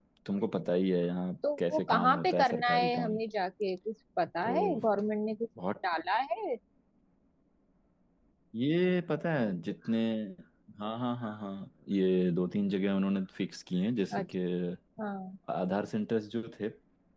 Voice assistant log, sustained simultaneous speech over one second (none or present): present